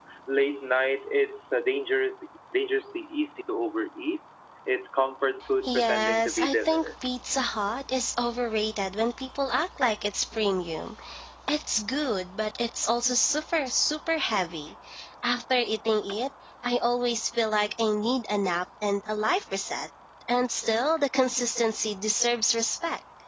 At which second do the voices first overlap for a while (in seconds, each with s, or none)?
5.7 s